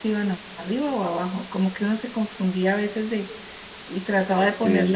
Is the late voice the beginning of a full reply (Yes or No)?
No